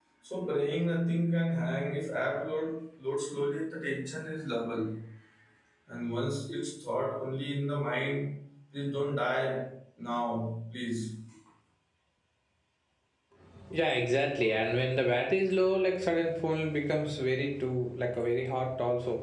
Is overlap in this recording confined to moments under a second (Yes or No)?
Yes